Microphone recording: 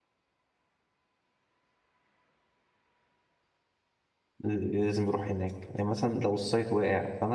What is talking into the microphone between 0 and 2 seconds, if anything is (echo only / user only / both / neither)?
neither